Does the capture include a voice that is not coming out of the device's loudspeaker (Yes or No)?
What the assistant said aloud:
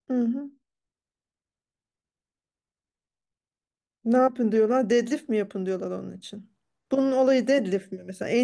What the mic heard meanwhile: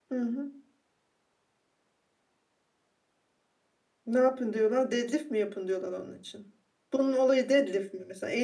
No